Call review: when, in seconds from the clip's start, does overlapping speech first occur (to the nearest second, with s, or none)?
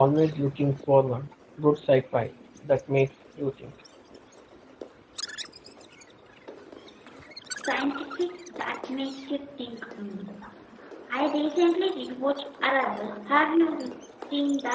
none